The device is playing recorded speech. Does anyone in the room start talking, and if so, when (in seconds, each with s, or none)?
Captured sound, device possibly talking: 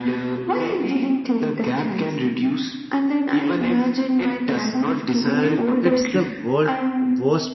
5.2 s